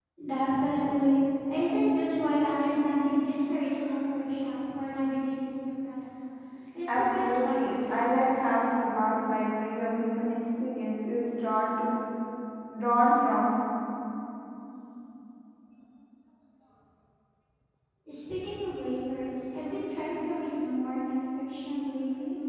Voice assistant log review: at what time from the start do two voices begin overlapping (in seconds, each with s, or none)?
7.0 s